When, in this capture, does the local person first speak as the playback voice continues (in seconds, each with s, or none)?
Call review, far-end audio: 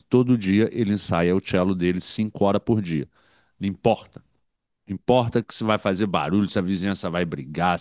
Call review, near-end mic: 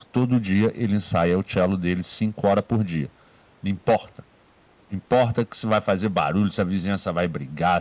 none